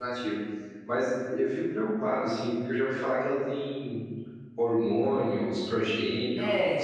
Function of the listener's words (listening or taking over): taking over